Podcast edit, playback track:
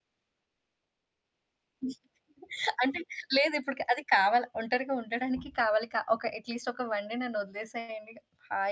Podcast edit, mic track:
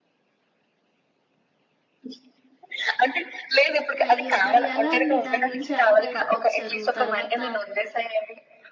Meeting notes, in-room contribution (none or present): present